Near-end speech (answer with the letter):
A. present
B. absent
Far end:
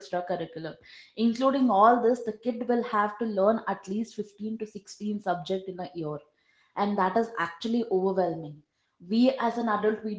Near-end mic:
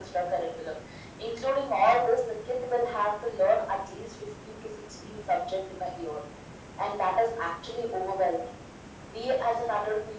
B